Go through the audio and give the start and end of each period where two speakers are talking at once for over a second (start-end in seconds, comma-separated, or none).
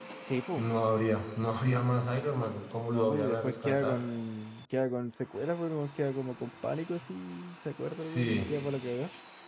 2.8-4.0